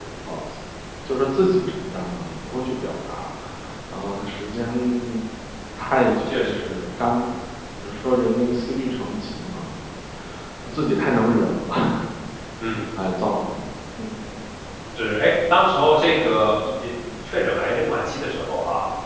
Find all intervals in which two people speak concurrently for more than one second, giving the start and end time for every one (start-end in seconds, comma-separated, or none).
none